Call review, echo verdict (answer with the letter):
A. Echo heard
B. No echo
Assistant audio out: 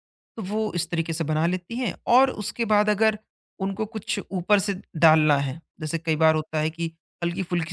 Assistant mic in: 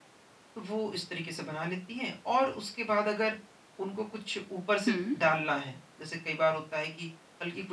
A